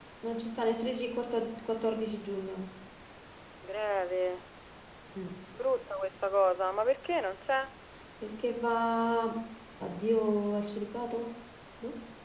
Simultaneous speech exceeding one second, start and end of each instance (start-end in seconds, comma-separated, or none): none